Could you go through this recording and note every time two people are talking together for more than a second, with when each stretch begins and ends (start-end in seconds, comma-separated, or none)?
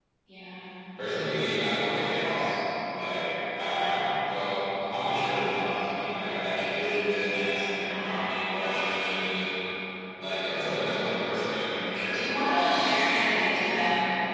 12.1-13.8